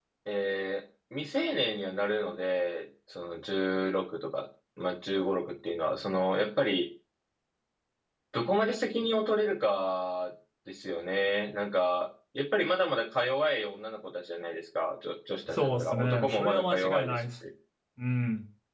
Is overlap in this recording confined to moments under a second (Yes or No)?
No